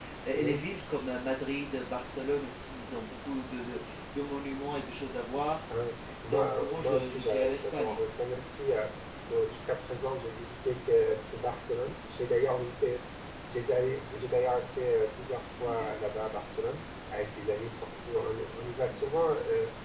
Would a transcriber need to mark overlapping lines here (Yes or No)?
Yes